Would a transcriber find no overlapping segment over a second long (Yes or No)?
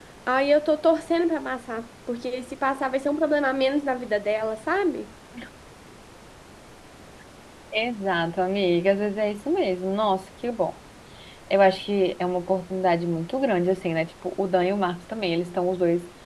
Yes